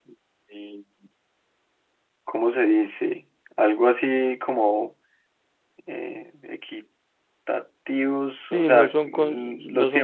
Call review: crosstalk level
present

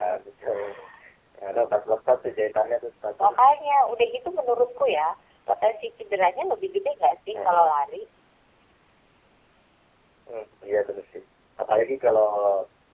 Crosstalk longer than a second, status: none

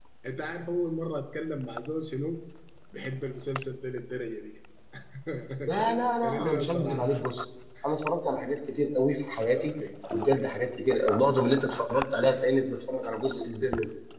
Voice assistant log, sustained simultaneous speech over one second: present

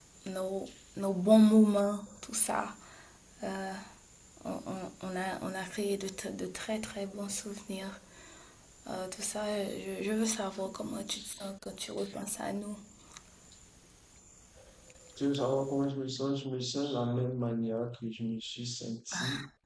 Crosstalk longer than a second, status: none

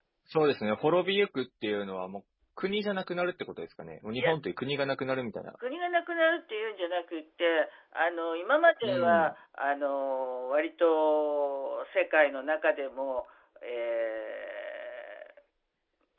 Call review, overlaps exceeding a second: none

